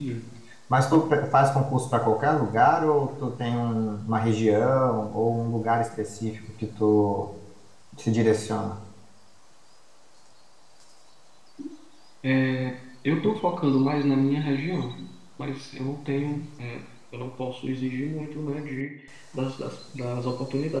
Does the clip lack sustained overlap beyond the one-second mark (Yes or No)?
Yes